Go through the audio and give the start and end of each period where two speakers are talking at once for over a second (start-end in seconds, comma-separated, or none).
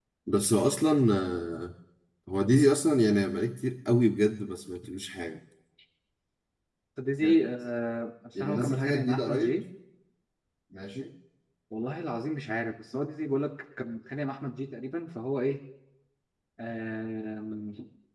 8.4-9.6